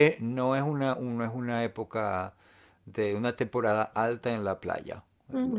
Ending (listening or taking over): taking over